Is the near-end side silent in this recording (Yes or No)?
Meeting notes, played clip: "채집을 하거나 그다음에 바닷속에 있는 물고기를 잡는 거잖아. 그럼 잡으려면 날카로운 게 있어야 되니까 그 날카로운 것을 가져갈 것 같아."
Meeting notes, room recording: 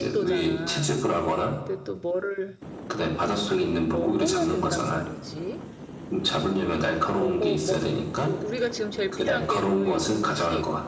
No